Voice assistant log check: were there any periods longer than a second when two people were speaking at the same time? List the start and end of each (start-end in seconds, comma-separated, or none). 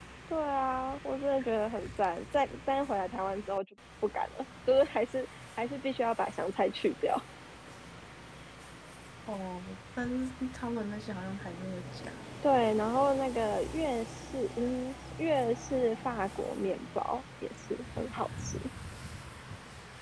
none